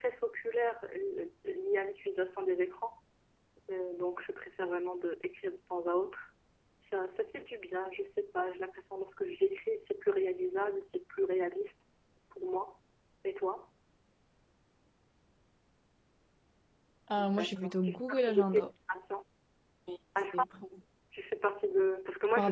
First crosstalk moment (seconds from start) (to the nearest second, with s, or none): 17 s